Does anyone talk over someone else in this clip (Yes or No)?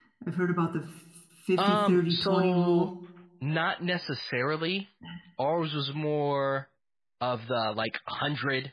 Yes